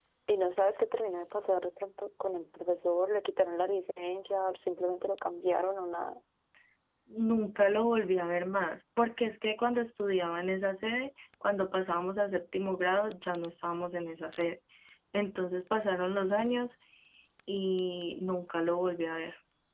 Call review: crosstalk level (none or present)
none